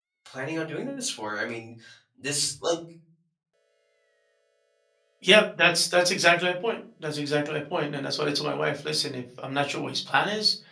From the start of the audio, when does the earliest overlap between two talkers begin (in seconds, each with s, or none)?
none